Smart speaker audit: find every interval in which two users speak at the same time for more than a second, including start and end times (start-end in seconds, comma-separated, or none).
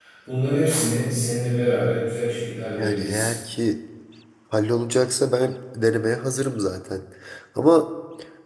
none